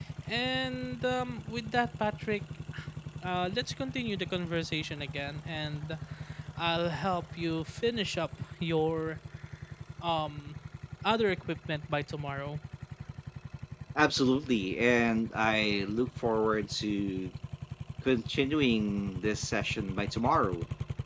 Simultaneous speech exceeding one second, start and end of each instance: none

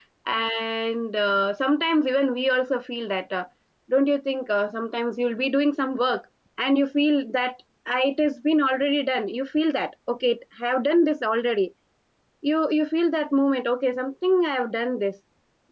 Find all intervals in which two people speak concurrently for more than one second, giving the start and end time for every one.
none

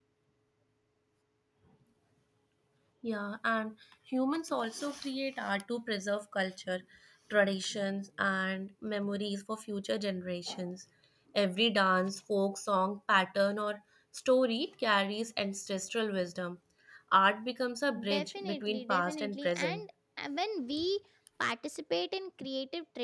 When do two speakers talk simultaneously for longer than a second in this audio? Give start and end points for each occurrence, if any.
18.1-19.8

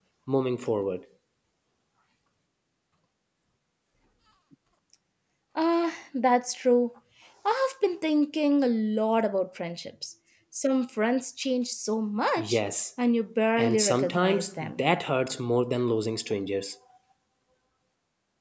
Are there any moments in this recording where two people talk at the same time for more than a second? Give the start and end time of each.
13.6-14.8

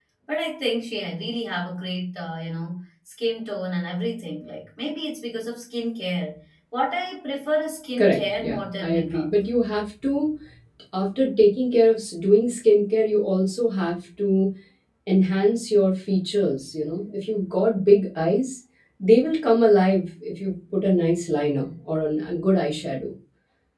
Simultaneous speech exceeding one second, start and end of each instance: 8.0-9.3

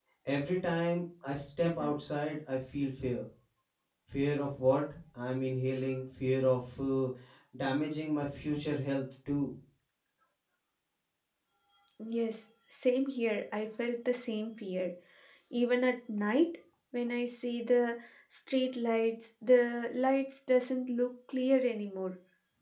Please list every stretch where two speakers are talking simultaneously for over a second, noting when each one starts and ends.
none

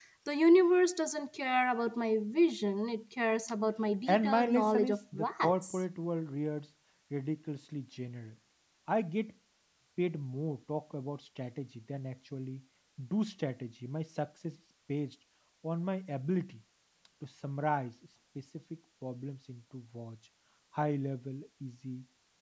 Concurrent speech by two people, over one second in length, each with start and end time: 4.1-5.8

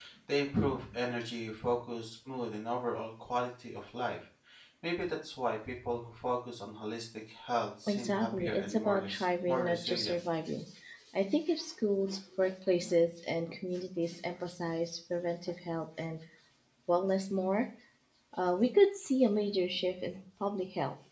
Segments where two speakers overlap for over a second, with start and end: 7.9-10.2

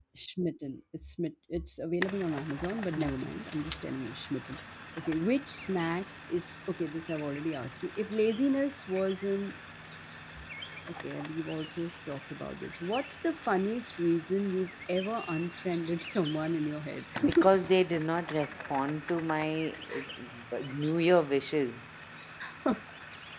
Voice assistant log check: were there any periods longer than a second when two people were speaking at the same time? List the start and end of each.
none

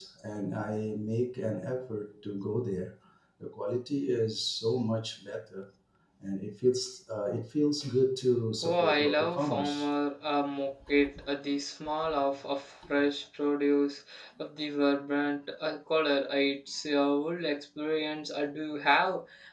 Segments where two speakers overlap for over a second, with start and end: 8.6-9.9

